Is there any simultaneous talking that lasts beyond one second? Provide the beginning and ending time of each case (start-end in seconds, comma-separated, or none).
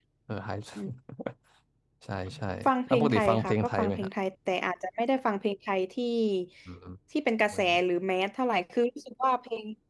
2.9-4.1